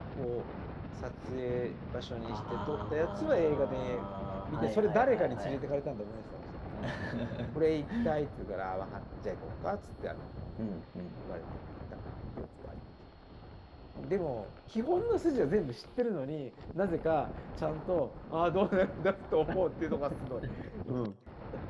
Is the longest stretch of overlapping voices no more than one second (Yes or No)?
No